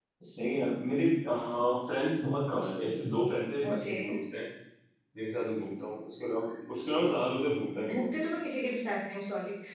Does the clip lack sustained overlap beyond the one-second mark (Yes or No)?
Yes